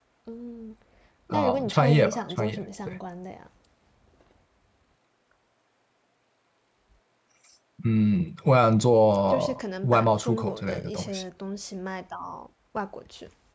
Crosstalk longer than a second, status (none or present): present